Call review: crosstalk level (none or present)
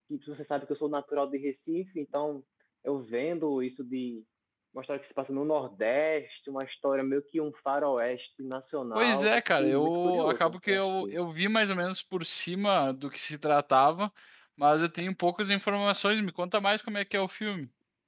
present